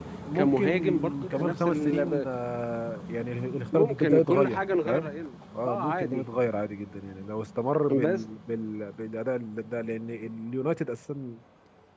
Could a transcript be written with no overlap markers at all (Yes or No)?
No